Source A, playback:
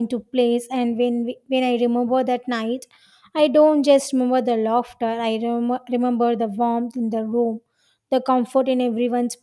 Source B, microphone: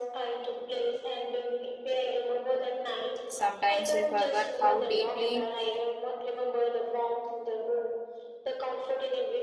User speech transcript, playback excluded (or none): Sometimes we forget how deeply